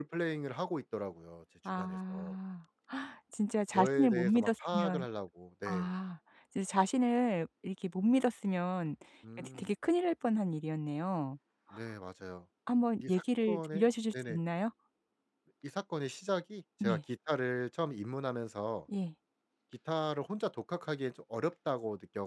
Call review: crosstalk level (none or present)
present